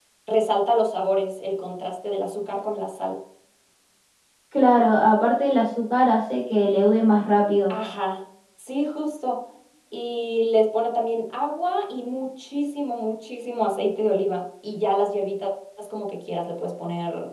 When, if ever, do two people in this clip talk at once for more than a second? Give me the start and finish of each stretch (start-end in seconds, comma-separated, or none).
none